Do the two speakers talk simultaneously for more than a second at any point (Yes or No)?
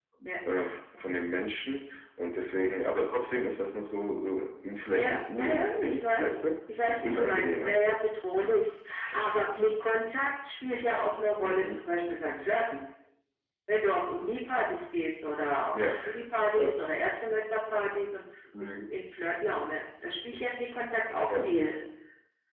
Yes